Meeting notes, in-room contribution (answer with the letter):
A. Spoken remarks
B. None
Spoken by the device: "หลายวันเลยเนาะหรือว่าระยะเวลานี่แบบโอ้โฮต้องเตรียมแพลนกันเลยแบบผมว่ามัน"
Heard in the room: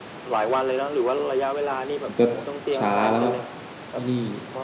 A